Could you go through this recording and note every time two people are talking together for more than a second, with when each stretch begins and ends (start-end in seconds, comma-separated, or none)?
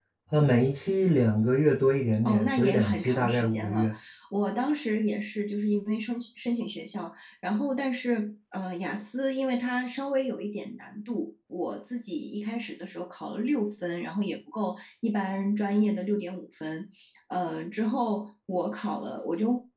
2.2-3.9